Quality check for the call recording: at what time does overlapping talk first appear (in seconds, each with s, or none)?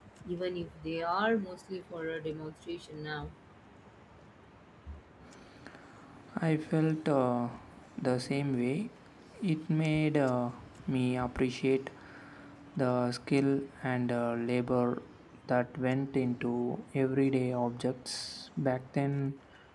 none